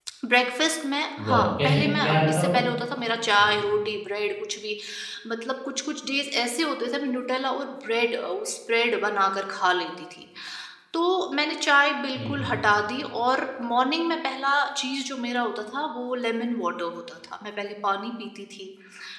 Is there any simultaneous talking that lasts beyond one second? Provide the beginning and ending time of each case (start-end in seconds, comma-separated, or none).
1.2-2.5